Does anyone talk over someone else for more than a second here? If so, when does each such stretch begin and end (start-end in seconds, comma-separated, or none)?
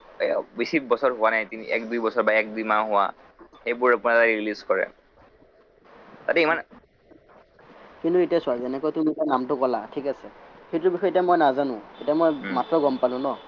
none